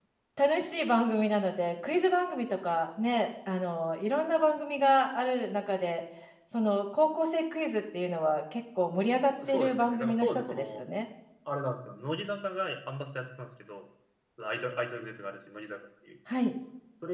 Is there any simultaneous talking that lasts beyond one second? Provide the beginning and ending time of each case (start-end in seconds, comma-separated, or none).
9.5-10.8